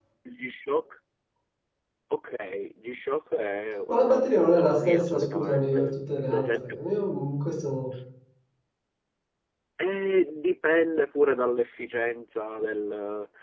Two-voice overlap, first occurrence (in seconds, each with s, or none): 3.9 s